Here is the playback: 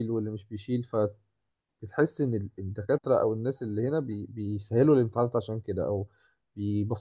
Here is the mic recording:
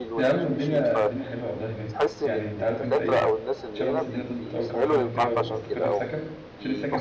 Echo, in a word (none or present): present